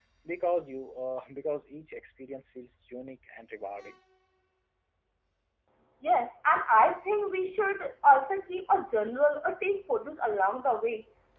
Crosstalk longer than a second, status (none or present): none